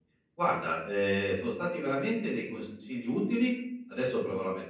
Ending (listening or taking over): listening